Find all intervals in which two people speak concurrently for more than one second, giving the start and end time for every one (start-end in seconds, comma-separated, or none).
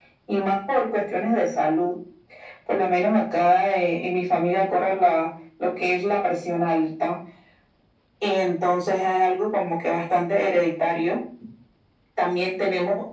none